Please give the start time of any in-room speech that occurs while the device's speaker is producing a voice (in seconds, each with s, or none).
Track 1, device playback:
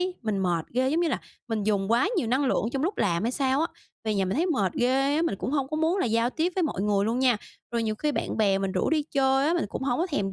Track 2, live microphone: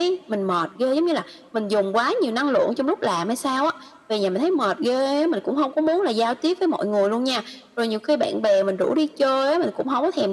none